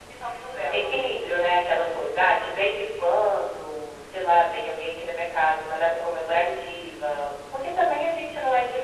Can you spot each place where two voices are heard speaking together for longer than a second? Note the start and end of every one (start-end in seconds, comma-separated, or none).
none